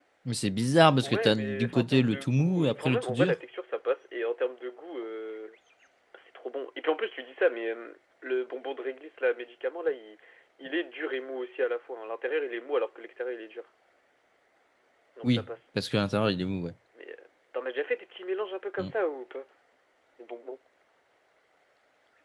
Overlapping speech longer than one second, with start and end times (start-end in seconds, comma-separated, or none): 1.0-3.4